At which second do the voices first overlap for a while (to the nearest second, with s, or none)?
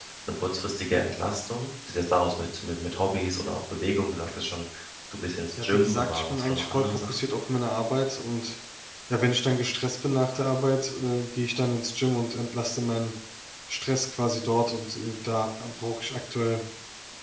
6 s